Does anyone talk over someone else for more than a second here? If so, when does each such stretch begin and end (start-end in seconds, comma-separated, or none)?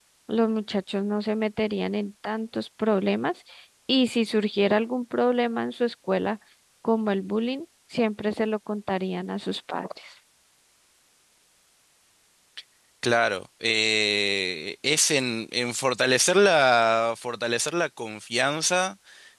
none